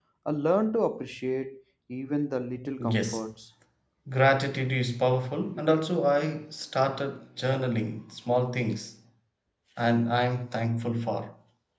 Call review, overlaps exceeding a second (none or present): none